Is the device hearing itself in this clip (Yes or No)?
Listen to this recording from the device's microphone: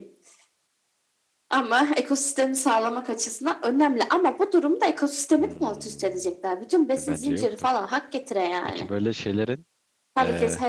Yes